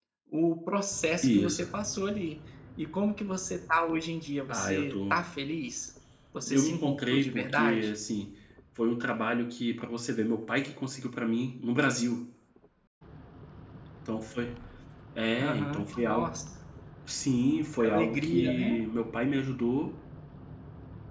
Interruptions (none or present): present